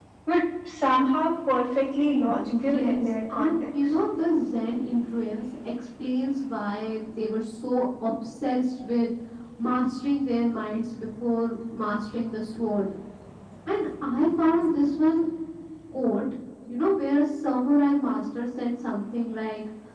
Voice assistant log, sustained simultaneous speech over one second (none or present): present